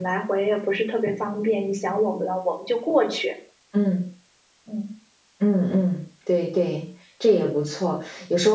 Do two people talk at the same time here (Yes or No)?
No